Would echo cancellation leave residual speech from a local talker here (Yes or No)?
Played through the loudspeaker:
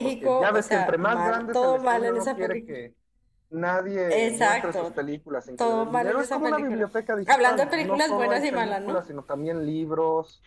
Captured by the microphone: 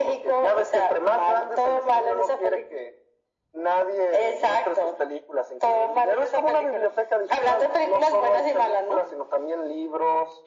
No